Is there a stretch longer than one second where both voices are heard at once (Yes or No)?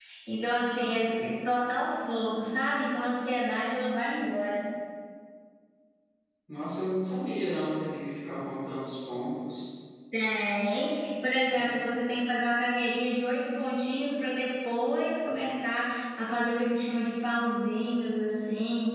No